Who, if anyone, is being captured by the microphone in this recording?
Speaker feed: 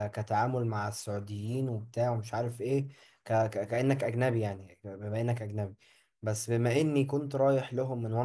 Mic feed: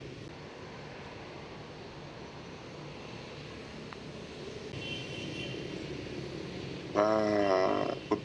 user only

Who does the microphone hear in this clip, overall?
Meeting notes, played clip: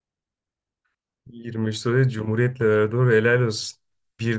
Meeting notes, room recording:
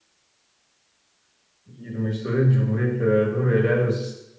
echo only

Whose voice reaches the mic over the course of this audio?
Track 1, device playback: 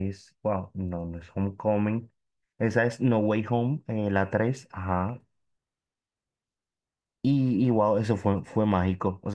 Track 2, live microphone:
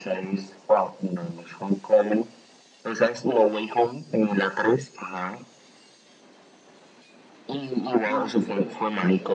both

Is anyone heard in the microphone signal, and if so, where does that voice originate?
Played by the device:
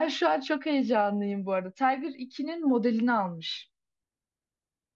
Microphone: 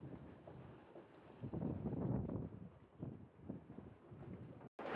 neither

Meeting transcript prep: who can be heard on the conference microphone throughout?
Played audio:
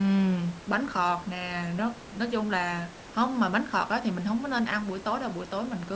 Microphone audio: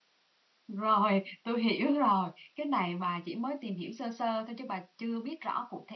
user only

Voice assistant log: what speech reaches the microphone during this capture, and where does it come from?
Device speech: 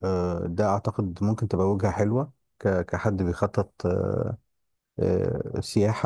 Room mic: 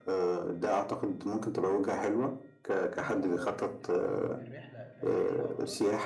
both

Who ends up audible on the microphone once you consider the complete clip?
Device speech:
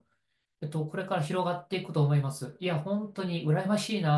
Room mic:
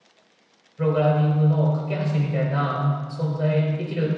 user only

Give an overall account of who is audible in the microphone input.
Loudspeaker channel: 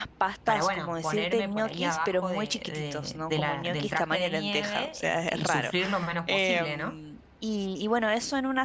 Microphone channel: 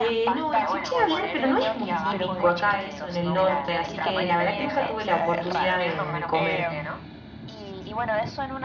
both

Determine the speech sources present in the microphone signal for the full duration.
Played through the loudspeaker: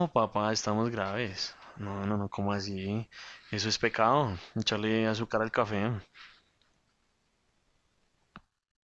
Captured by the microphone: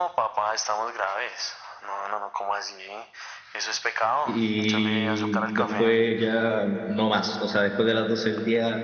both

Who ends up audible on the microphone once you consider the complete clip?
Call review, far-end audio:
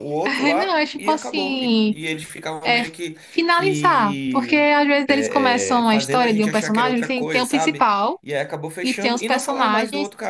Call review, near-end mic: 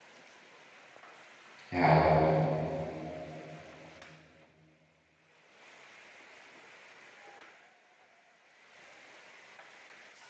user only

